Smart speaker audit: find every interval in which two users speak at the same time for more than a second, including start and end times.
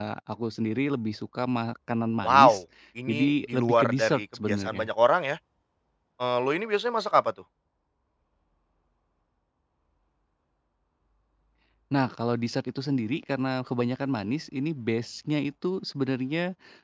3.1-4.9

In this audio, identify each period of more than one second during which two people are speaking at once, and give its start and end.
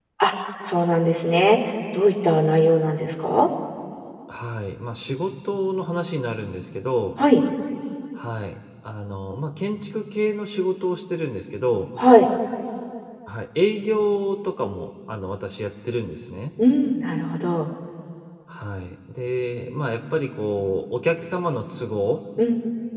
none

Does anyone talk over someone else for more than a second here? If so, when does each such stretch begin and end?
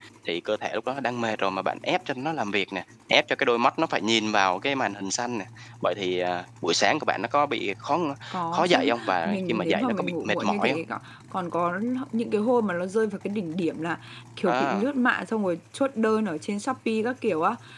8.5-10.8

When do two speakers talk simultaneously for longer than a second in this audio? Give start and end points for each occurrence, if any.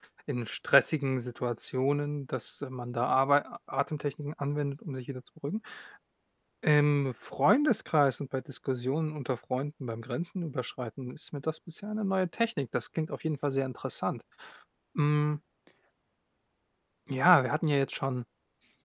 none

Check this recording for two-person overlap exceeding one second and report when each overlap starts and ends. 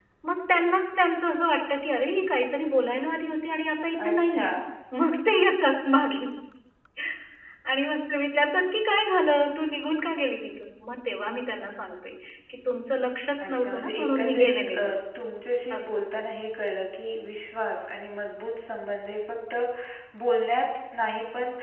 13.4-14.8

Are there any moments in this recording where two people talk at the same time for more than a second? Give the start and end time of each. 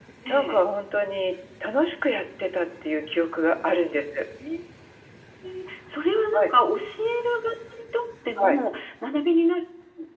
none

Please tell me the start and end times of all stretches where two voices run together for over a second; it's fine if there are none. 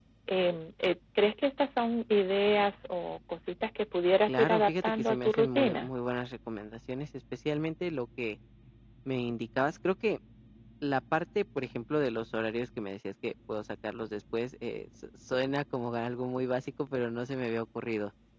4.3-5.9

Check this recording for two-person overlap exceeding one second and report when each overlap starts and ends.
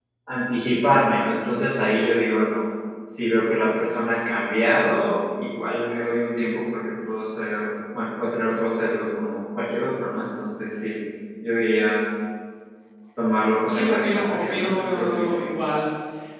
13.7-15.4

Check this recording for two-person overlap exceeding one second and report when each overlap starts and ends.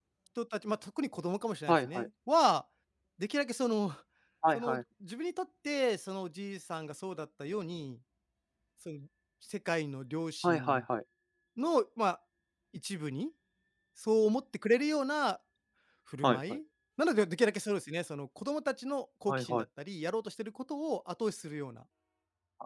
none

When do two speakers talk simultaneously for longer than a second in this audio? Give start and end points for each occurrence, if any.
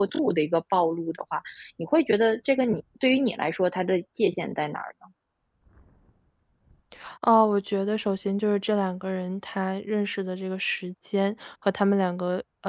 none

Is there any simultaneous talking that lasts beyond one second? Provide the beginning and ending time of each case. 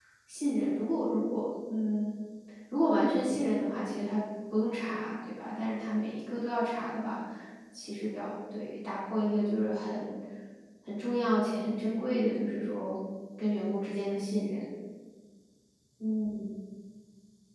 none

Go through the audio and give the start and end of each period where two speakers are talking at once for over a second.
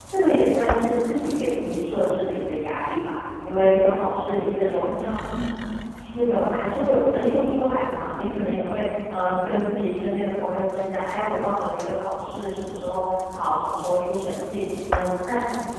3.4-4.9

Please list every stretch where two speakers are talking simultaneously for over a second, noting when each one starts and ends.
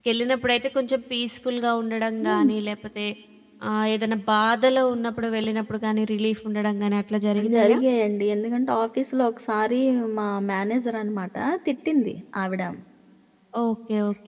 none

